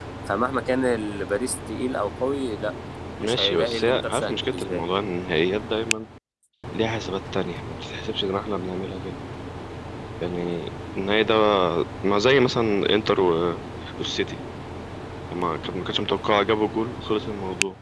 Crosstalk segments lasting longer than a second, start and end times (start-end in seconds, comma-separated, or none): 3.2-4.8